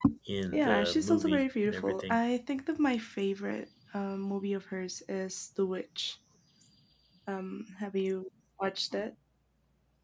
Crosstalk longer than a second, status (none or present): present